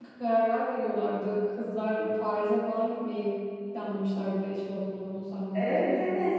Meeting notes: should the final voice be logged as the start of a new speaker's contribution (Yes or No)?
Yes